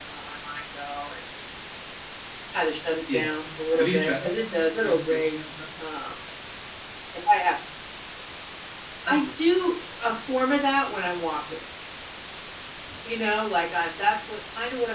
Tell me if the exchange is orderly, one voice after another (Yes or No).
No